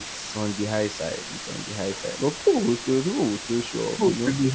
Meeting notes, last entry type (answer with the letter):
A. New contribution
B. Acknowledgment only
A